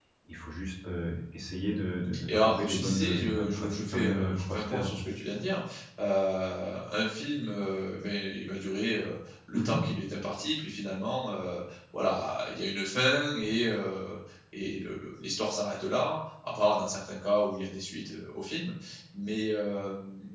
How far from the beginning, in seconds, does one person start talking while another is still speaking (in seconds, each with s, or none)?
2.3 s